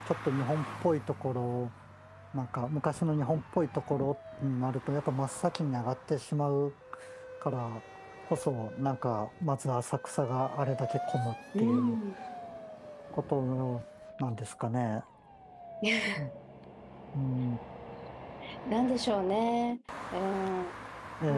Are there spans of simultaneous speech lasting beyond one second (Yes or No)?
No